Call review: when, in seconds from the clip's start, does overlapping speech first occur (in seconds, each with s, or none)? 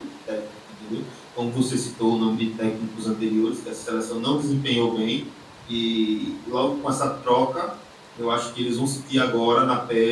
none